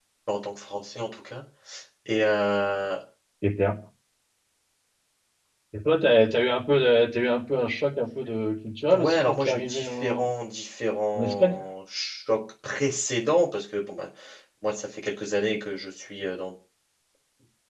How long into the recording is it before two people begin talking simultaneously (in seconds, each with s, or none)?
8.9 s